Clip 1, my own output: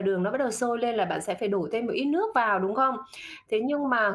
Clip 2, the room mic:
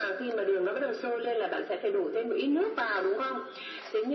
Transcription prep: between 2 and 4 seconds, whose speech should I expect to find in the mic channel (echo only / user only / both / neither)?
echo only